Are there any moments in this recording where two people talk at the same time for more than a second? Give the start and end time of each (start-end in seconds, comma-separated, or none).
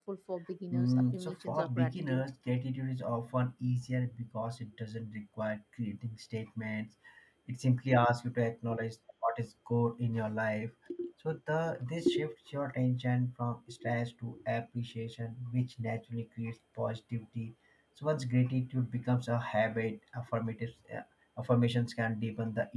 0.7-2.2